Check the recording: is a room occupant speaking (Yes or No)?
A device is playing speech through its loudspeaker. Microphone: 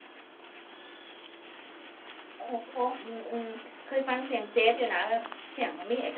Yes